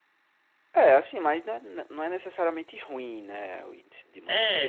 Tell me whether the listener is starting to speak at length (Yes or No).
Yes